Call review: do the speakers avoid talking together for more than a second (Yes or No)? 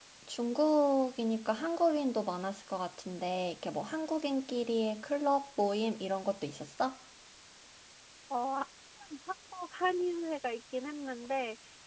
Yes